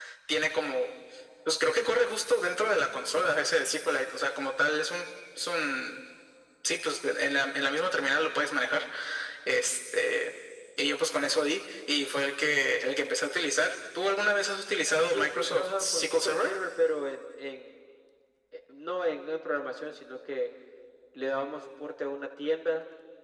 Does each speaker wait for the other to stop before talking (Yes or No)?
No